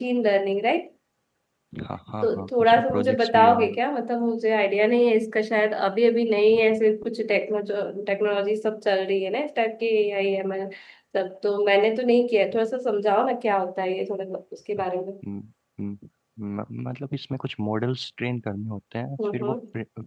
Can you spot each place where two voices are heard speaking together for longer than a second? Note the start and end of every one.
2.2-3.8

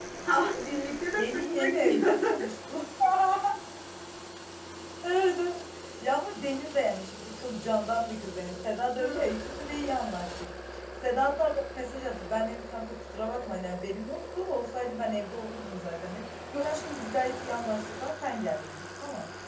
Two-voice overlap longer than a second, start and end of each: 1.2-2.5

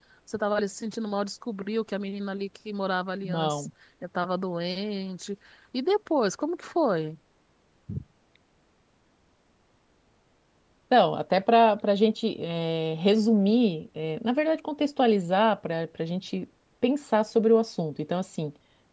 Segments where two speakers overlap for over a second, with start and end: none

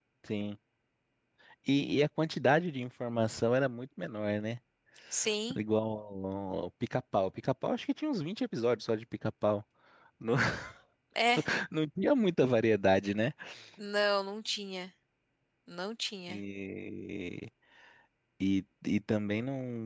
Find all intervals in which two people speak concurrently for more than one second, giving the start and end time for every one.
none

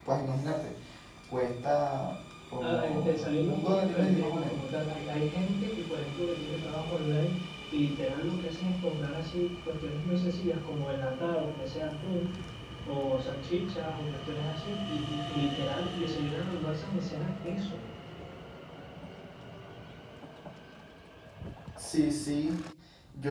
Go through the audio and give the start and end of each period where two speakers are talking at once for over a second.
2.6-4.6

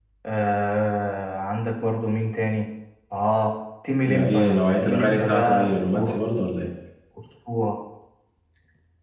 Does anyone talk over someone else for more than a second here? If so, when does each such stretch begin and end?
4.0-6.2

